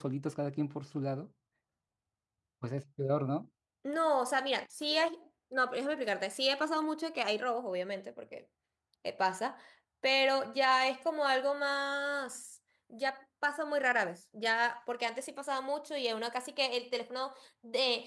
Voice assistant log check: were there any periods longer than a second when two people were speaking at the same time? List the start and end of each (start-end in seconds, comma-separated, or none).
none